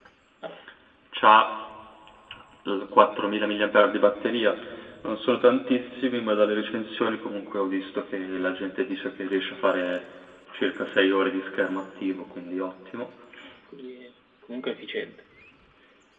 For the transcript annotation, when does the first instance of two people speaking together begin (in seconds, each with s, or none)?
none